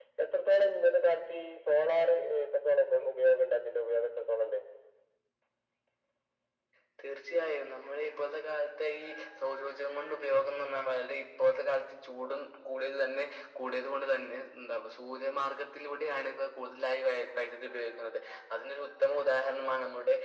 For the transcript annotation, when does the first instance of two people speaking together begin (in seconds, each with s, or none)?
none